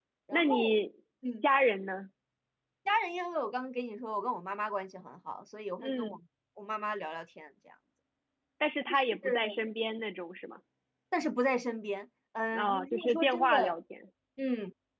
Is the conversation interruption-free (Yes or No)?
No